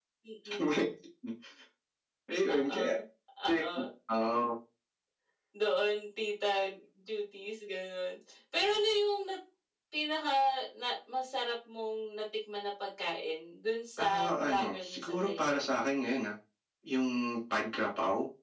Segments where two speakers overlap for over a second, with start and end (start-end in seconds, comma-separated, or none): 14.0-15.6